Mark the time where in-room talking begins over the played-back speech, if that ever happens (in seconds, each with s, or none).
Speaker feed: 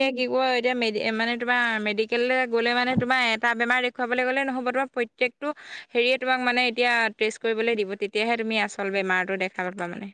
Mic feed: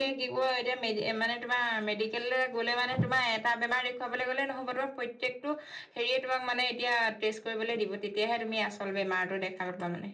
none